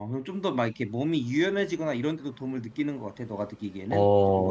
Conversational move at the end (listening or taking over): taking over